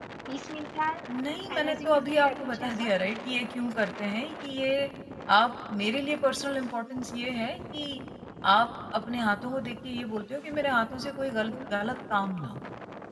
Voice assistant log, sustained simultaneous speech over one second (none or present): present